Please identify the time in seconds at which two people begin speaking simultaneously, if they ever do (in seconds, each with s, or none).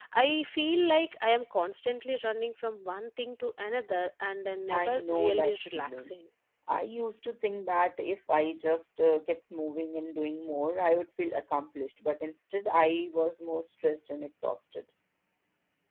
4.7 s